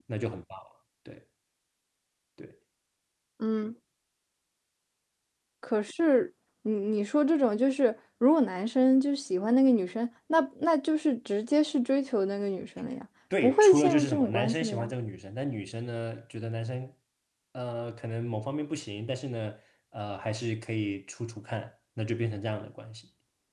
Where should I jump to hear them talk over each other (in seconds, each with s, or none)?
13.3 s